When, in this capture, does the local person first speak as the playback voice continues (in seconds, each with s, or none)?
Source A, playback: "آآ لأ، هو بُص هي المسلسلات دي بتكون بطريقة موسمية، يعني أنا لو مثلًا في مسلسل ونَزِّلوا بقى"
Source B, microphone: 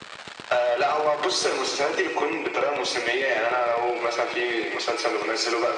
none